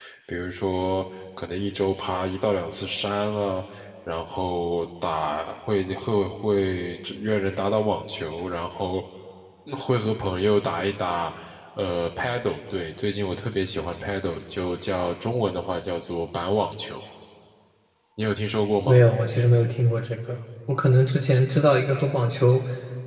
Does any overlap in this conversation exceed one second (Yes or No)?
No